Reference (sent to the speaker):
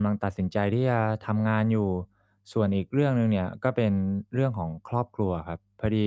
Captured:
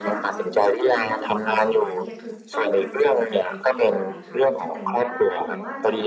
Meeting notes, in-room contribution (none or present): present